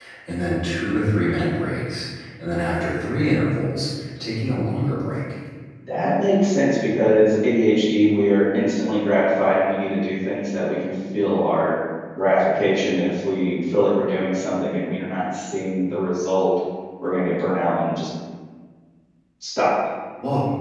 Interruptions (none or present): none